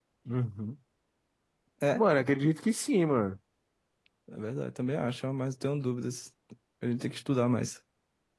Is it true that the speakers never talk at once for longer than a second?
Yes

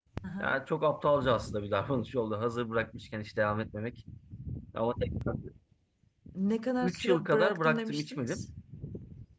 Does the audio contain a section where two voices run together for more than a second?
Yes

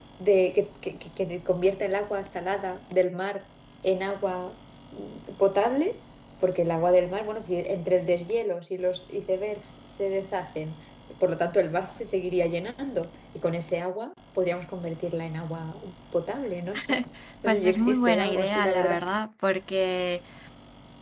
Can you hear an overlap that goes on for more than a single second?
Yes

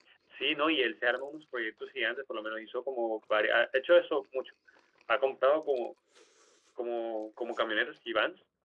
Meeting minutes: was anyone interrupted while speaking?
No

